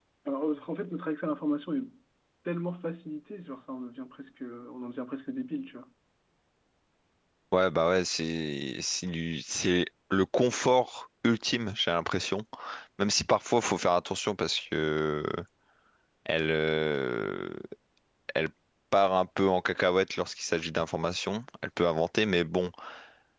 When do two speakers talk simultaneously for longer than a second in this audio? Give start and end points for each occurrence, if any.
none

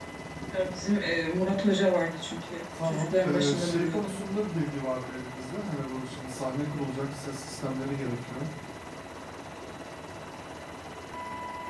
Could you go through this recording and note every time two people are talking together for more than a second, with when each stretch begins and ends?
2.8-4.1

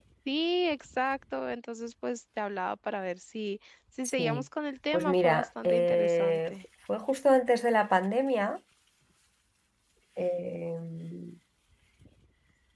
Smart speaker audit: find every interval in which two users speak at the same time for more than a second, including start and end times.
4.9-6.5

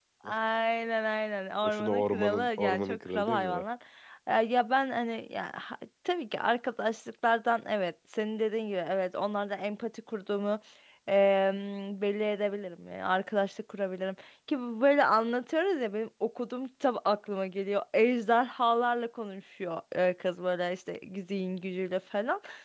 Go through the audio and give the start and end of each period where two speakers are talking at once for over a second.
1.6-3.6

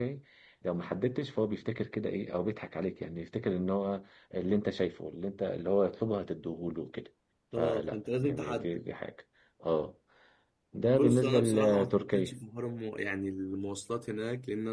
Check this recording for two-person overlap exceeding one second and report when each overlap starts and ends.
7.6-8.8, 10.9-12.3

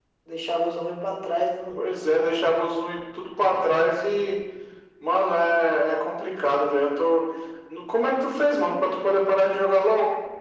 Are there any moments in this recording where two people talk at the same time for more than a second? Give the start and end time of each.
none

